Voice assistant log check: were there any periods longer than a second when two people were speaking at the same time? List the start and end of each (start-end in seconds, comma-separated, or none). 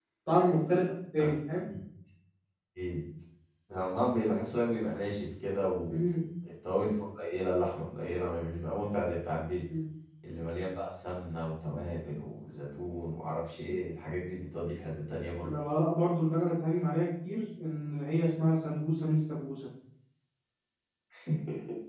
none